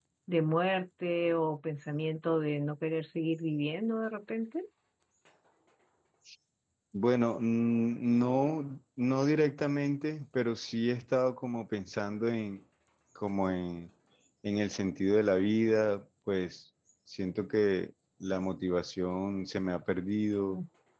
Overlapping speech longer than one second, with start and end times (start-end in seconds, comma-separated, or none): none